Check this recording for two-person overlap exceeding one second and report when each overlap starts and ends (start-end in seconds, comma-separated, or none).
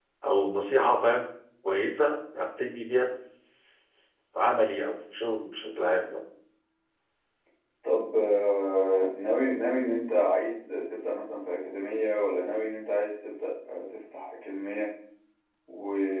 none